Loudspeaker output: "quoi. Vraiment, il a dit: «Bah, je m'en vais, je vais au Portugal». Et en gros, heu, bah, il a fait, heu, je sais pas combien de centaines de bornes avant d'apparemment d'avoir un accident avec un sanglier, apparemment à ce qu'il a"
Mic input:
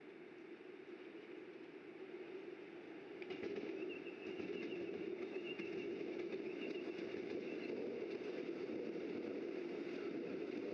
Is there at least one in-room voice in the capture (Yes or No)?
No